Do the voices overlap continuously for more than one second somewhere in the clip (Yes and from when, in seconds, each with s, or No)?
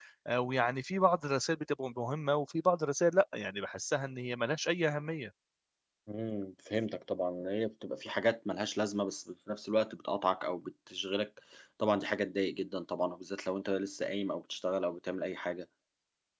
No